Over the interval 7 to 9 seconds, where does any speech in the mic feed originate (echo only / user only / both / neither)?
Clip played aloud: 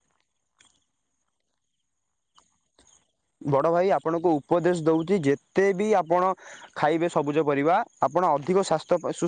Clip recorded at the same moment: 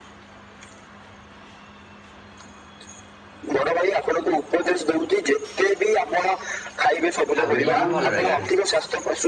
both